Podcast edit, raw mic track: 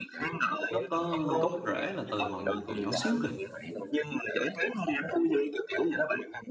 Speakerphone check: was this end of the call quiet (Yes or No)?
No